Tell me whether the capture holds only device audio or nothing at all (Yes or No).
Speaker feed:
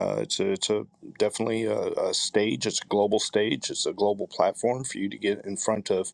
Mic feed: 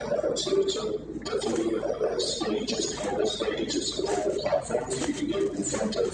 Yes